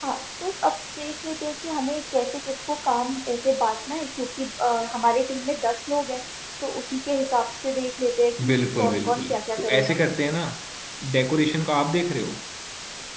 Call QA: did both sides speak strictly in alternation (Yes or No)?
No